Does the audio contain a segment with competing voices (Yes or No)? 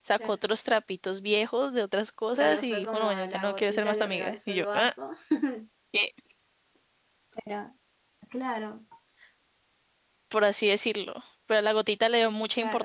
Yes